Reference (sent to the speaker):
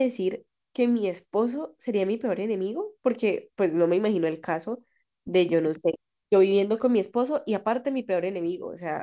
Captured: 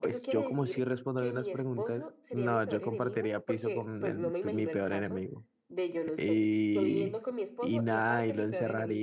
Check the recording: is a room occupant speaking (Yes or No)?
Yes